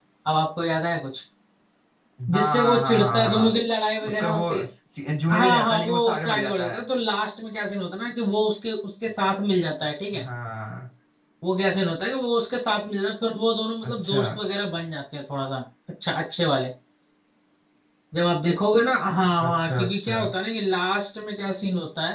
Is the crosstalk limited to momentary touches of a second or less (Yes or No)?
No